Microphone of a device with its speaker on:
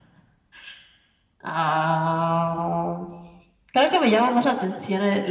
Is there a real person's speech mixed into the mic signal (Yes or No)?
No